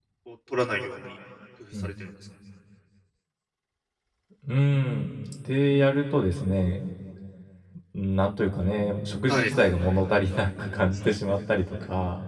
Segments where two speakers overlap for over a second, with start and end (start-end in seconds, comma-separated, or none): none